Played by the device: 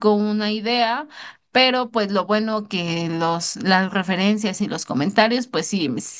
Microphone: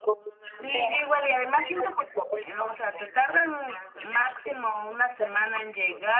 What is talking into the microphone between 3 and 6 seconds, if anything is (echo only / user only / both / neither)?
both